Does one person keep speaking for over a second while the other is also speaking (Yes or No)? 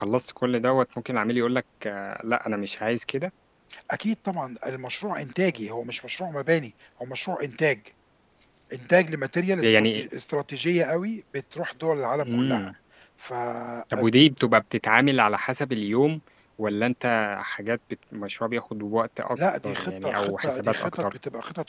Yes